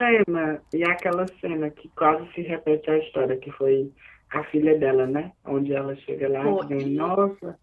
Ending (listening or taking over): listening